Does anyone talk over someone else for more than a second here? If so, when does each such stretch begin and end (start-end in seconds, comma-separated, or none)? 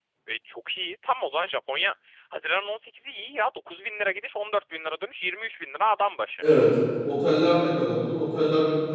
none